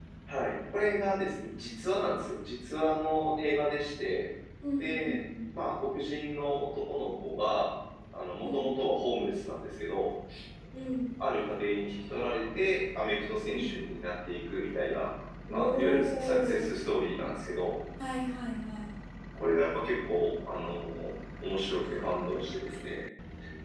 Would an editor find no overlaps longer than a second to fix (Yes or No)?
No